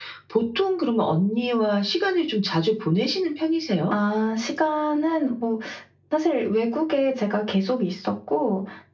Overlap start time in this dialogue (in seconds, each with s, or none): none